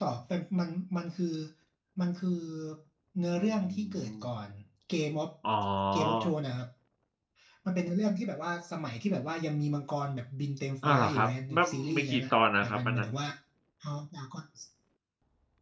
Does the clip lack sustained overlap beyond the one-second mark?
No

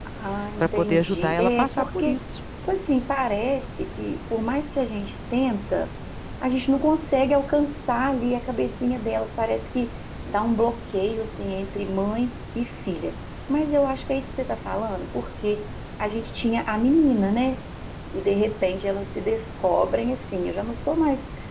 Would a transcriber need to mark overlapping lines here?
Yes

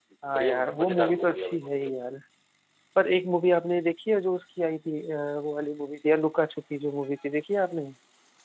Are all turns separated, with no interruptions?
No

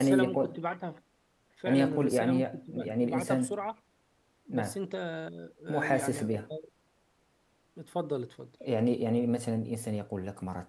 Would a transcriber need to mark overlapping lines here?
Yes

